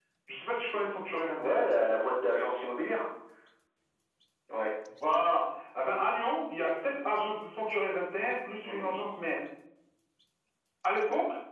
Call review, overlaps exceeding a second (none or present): none